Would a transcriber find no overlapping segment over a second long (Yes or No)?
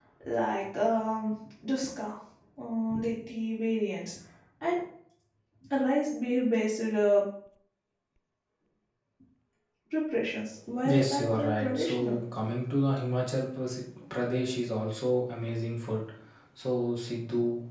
No